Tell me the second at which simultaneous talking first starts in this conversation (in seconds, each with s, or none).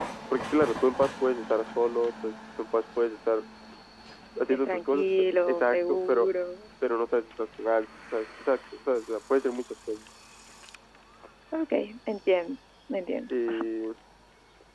4.4 s